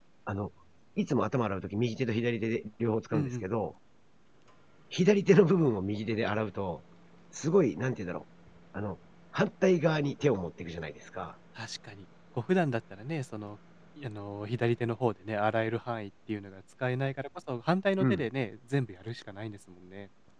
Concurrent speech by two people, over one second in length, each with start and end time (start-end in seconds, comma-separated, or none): none